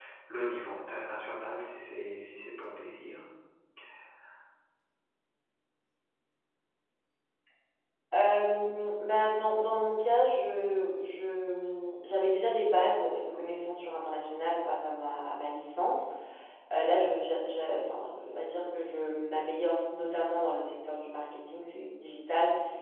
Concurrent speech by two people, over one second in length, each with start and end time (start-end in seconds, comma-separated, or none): none